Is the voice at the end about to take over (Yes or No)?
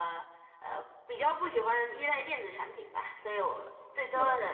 No